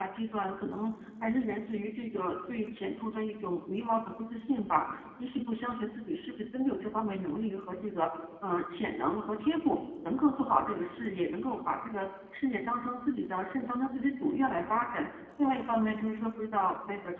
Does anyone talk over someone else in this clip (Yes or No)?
No